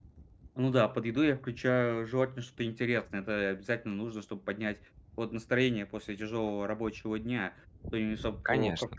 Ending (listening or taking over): listening